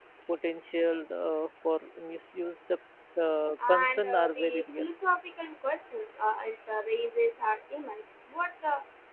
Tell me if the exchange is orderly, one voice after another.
No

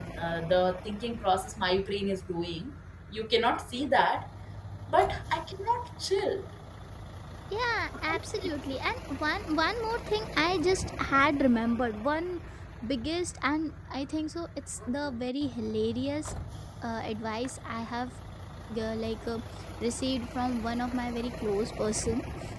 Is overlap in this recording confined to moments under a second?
Yes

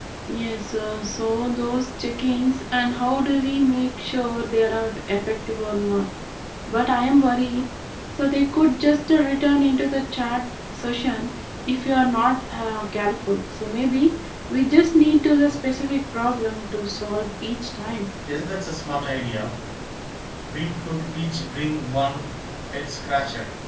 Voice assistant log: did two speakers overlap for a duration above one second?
No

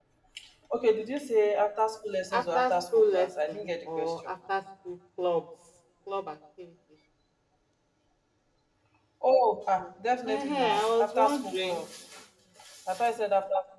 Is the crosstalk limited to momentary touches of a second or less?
No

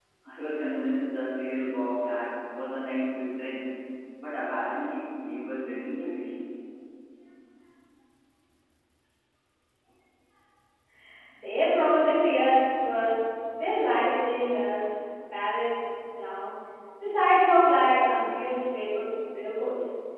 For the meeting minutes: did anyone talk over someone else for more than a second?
No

